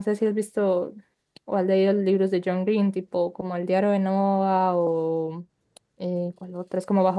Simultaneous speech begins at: none

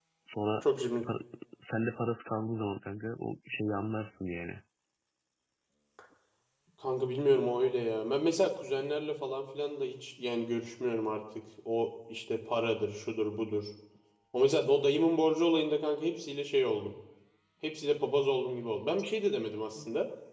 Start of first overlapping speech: none

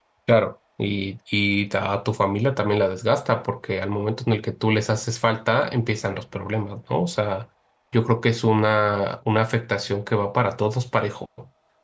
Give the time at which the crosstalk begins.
none

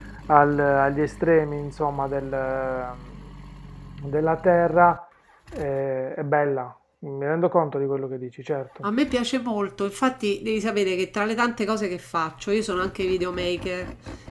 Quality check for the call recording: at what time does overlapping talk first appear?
none

